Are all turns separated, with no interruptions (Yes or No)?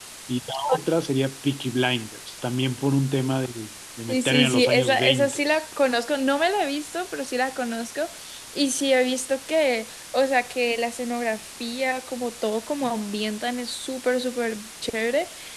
No